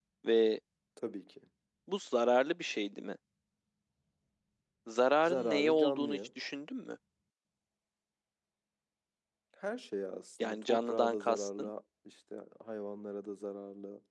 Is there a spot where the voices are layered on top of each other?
Yes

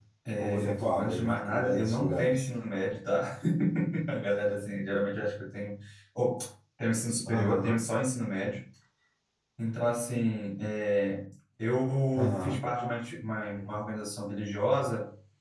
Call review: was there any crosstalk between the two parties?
Yes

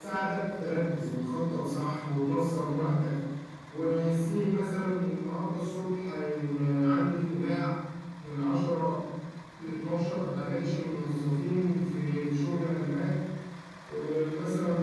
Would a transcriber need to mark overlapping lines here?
No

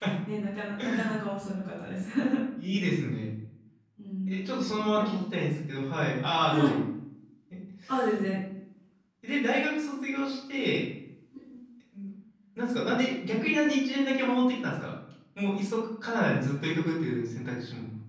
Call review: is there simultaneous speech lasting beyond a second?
No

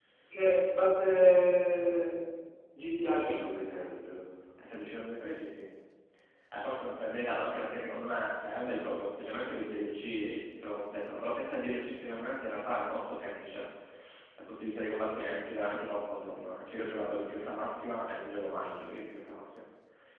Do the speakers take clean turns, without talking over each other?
Yes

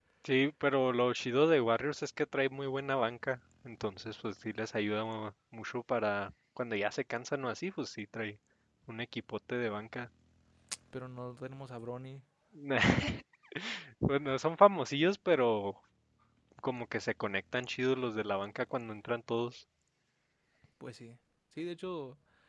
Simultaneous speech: No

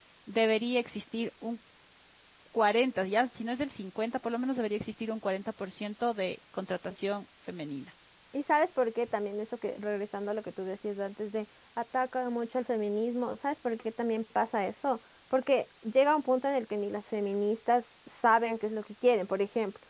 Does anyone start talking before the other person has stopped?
No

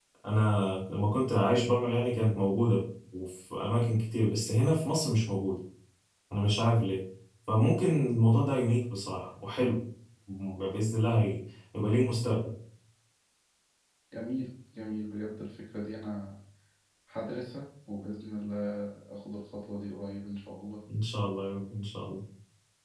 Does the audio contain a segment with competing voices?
No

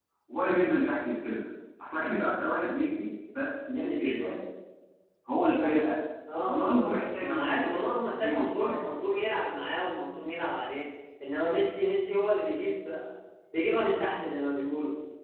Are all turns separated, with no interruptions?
No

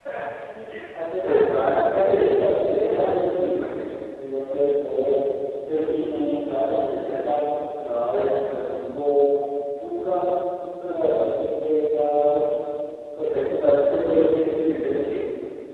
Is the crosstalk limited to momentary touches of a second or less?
No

